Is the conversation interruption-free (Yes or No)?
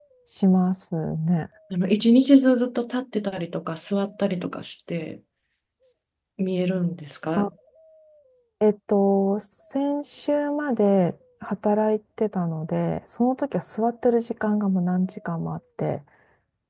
Yes